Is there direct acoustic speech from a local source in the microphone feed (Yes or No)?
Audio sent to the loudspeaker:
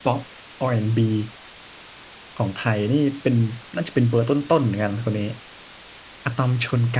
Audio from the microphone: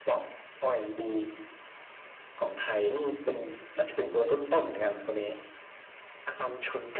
No